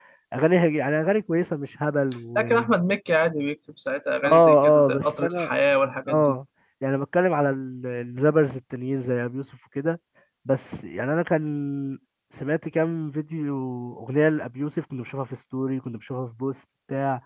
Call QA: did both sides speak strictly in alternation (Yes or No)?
No